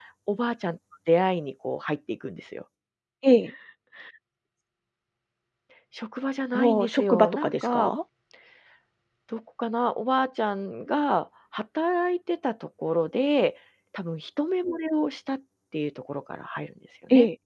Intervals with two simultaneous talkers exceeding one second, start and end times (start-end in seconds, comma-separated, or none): 6.5-7.9